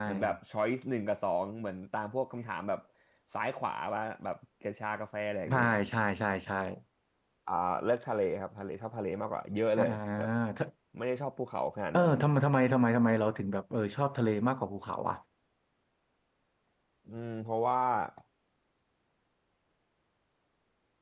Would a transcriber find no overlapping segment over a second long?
Yes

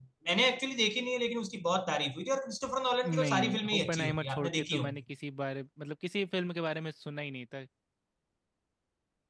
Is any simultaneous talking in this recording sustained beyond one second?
Yes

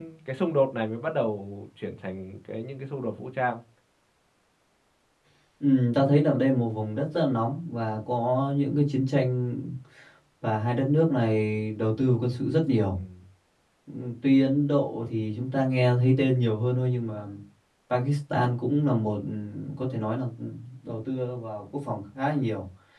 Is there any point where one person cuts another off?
No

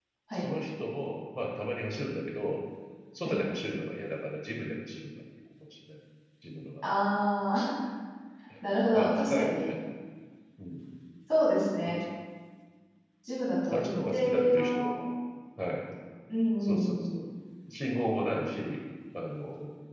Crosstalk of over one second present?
Yes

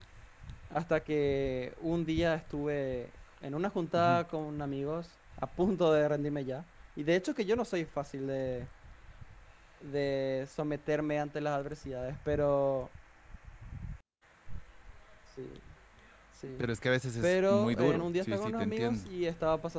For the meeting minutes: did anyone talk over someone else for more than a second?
Yes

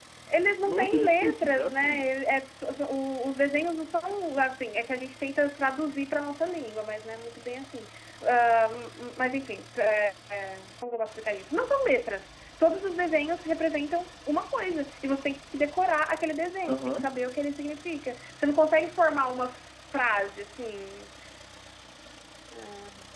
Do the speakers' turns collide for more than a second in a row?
Yes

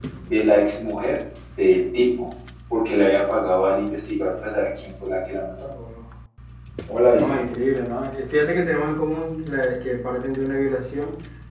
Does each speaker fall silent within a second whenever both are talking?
Yes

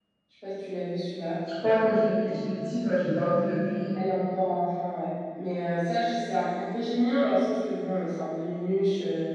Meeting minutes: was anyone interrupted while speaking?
No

